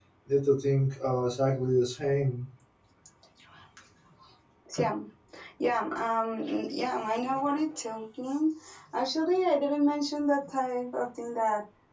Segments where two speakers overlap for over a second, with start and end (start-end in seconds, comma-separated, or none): none